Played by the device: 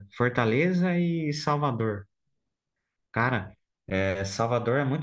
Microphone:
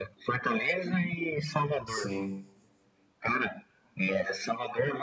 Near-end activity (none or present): present